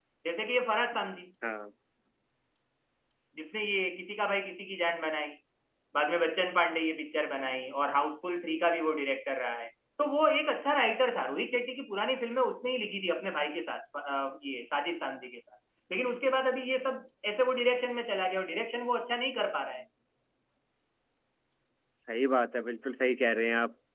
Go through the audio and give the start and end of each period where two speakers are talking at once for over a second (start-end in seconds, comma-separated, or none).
none